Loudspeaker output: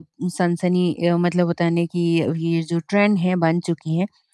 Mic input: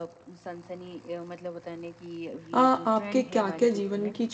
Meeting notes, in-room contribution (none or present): present